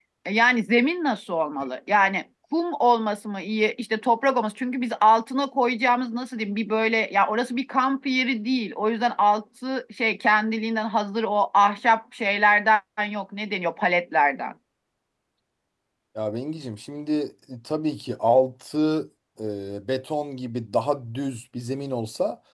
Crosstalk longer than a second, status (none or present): none